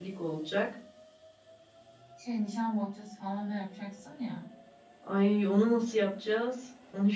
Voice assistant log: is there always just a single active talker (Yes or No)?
Yes